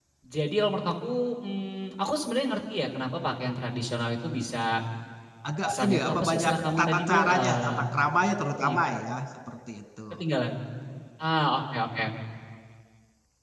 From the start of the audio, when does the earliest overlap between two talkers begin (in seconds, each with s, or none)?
5.6 s